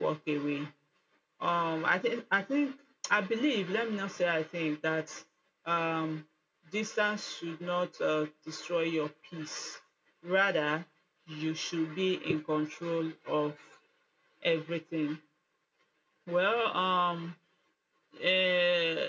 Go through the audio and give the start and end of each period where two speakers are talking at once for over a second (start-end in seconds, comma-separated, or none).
none